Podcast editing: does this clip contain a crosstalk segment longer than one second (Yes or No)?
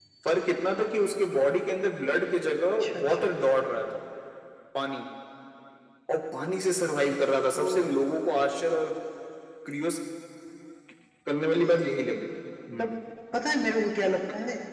No